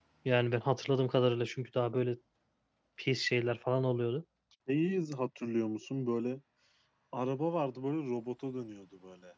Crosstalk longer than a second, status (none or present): none